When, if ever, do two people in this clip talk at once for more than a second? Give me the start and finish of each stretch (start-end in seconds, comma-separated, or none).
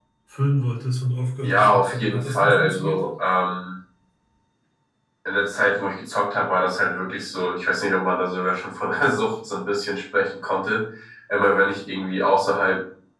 1.4-3.0